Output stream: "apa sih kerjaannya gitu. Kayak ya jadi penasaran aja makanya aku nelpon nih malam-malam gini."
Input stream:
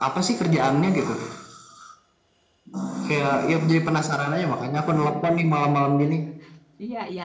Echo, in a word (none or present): present